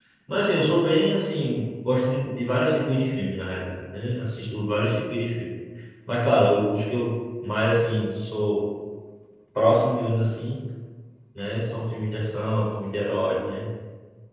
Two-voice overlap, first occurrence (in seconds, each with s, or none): none